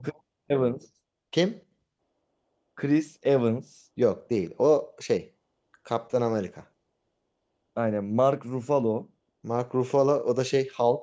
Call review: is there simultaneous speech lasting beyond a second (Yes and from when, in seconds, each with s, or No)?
No